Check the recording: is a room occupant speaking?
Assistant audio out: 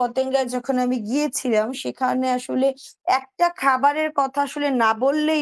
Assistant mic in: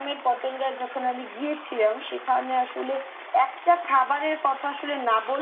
No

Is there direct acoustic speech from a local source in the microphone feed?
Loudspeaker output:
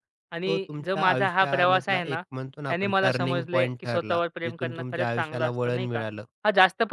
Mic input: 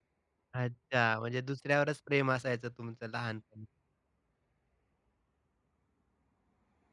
Yes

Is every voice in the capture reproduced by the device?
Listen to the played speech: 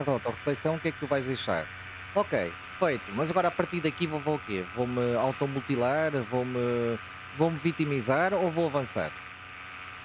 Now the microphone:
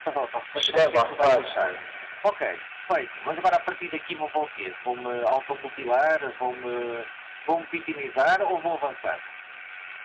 No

